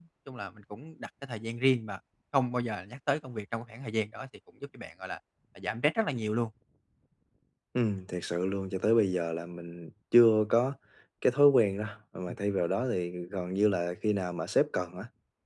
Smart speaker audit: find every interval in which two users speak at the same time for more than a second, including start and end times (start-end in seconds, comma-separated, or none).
none